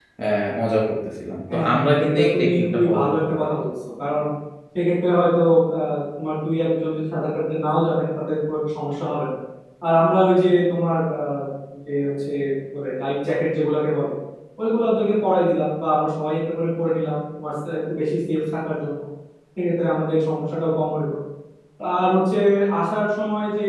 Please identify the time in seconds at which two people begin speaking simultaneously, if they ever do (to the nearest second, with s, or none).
1 s